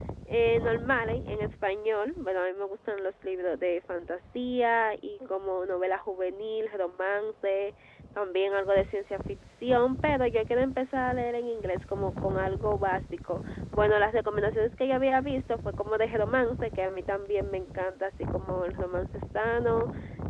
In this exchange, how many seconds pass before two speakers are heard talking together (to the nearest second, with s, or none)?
none